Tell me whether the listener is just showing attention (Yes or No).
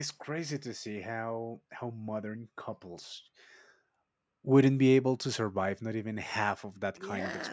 No